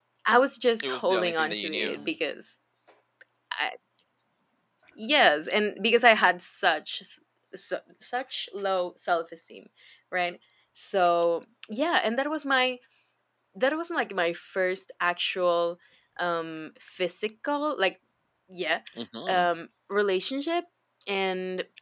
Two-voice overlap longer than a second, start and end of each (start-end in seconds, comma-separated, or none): 0.8-2.1